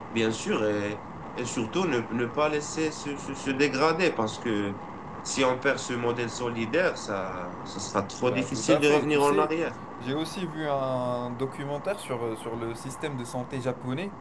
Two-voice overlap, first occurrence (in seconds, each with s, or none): 8.2 s